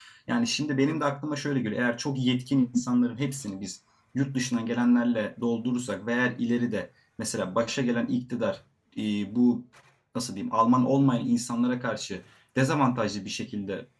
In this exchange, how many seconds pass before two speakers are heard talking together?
none

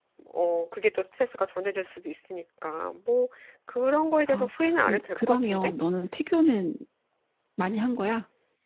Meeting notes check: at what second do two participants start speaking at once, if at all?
4.3 s

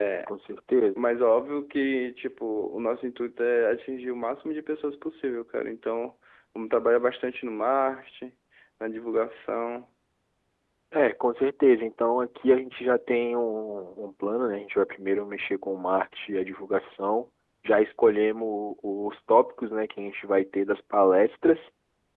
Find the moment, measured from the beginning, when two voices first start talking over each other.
none

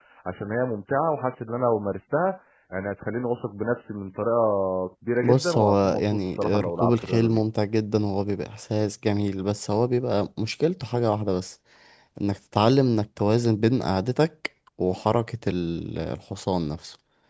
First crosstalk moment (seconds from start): 5.2 s

